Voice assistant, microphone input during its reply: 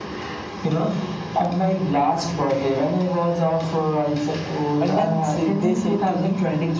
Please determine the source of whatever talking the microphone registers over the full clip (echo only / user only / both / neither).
both